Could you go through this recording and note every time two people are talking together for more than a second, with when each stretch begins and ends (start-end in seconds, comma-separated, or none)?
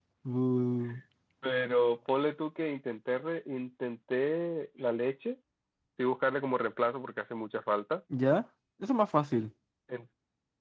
none